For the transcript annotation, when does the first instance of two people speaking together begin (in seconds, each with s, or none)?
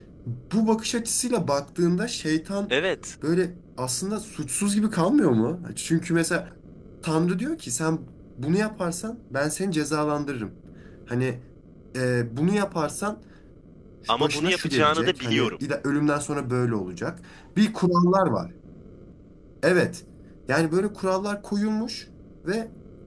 14.2 s